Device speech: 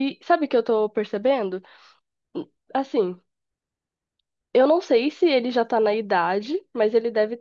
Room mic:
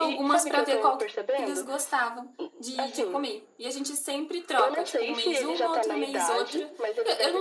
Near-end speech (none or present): present